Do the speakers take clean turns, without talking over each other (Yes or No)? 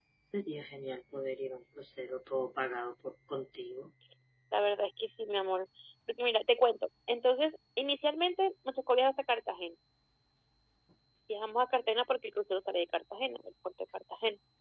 Yes